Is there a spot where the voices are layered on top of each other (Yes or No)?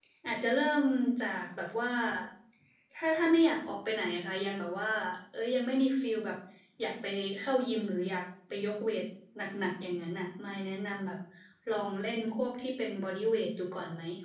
No